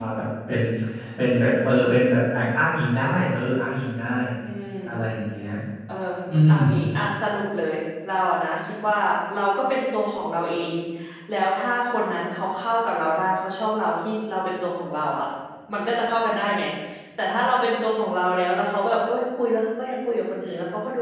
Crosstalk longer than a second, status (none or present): none